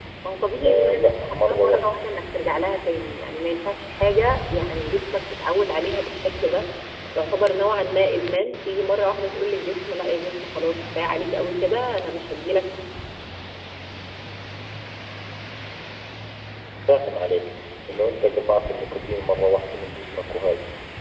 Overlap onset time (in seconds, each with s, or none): 0.6 s